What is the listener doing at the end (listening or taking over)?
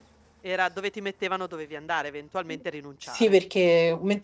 taking over